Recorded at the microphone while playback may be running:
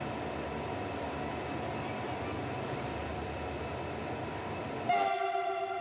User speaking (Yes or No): No